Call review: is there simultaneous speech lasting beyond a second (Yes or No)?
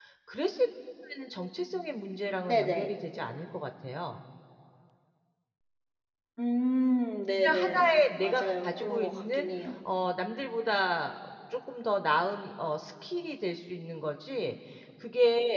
Yes